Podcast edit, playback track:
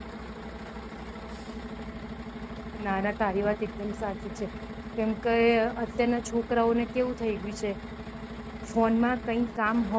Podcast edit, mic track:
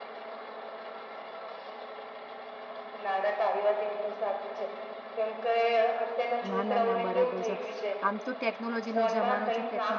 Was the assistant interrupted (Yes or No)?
Yes